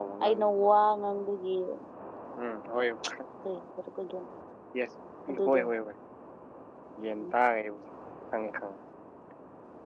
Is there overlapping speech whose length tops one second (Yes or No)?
No